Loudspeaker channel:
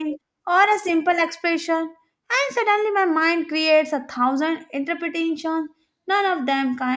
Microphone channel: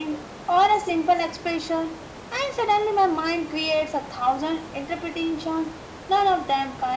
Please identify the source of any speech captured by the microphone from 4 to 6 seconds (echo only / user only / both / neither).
echo only